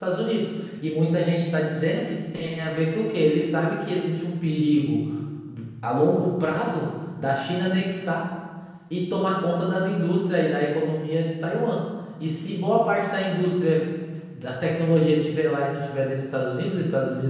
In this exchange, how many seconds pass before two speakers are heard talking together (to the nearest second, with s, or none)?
none